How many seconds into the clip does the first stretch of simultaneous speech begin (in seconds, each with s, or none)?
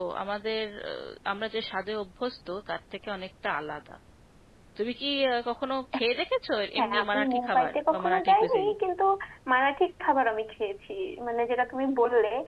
6.8 s